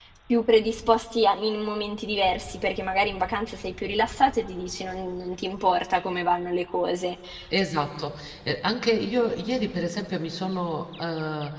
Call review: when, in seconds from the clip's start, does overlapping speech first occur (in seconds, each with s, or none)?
none